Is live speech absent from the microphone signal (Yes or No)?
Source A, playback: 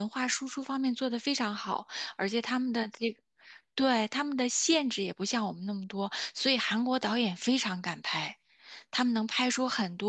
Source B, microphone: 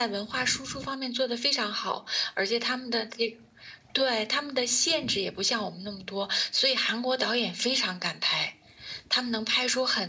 Yes